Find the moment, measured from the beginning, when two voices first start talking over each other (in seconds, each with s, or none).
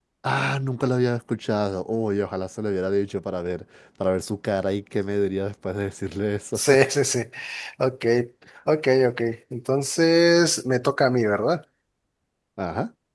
none